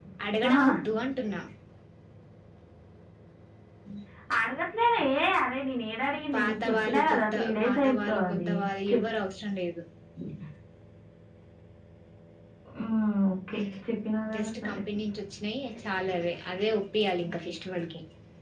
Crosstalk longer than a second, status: present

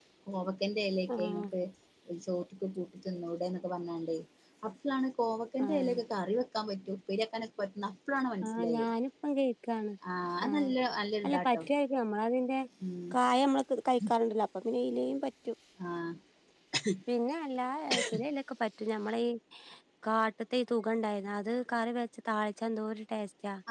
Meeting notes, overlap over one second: none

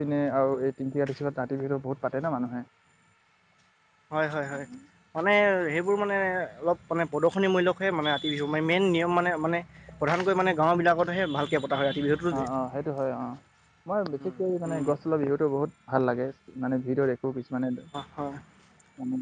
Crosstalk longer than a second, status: none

